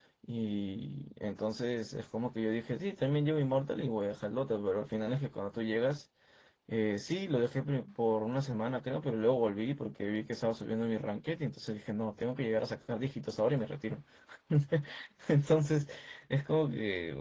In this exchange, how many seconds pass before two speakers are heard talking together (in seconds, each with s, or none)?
none